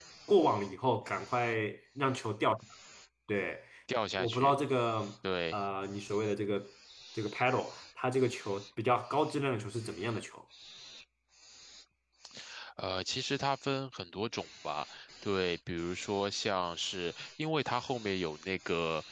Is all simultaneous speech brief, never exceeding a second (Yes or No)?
Yes